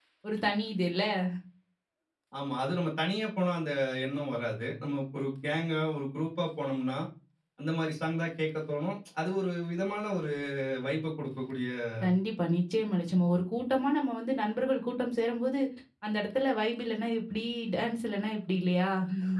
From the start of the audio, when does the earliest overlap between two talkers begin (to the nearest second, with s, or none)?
none